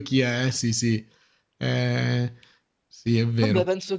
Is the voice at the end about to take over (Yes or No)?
Yes